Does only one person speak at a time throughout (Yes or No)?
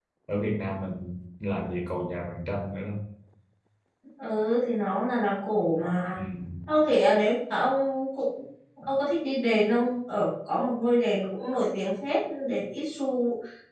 Yes